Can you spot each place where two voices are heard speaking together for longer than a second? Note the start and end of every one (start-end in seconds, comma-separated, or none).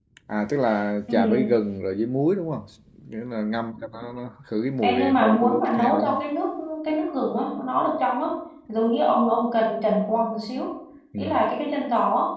4.8-6.2